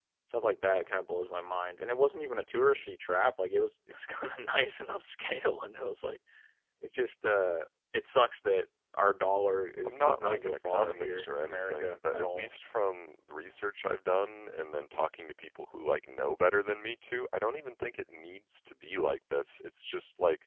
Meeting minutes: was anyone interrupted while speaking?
Yes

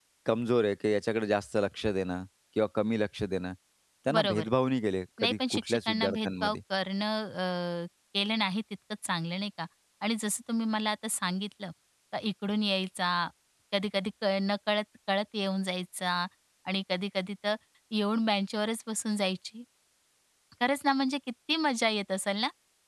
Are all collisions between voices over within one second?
No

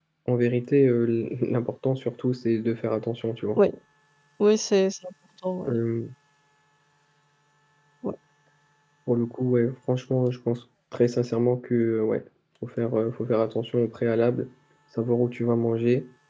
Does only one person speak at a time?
Yes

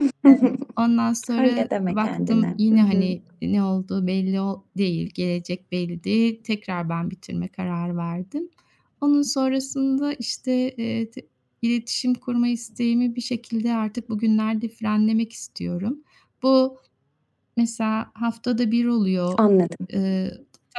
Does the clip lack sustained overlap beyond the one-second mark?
No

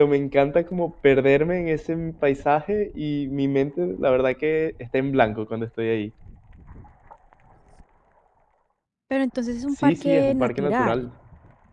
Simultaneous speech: Yes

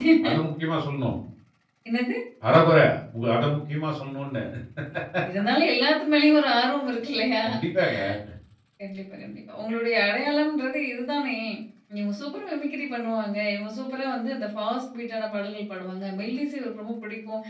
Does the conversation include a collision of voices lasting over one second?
No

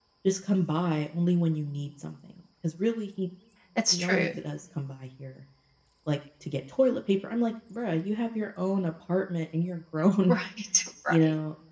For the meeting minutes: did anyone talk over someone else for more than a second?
No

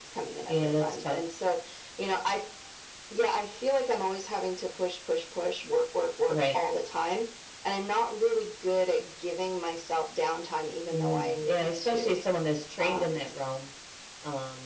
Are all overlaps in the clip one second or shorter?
No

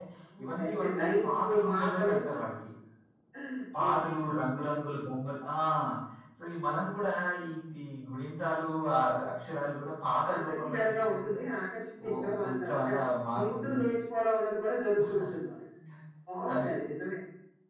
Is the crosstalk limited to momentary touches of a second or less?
No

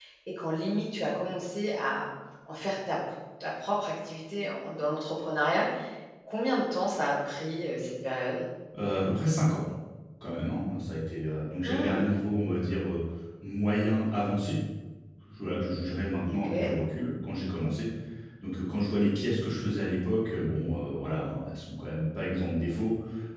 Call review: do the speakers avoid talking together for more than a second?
Yes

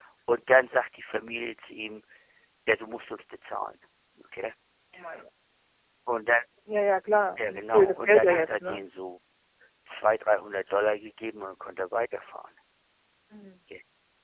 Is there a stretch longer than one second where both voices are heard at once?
Yes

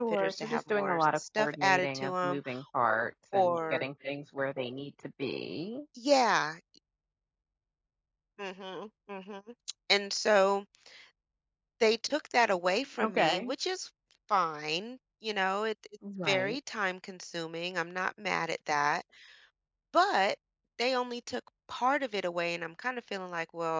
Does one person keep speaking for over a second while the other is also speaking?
Yes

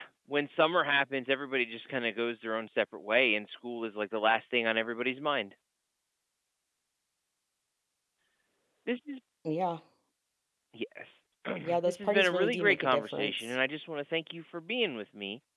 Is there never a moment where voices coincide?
No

